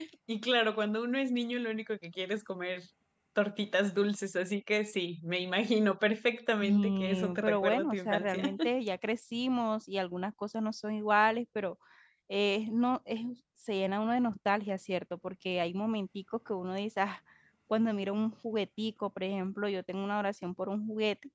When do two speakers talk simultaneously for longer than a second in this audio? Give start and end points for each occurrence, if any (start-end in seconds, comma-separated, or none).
6.6-8.4